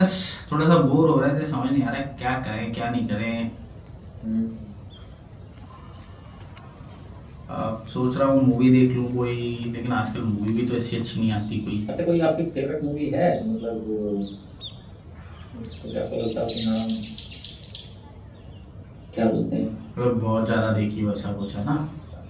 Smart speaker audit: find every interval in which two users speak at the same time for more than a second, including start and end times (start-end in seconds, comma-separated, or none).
none